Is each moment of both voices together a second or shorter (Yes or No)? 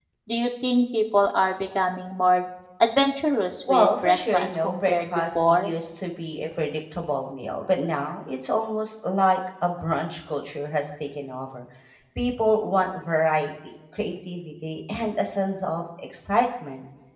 No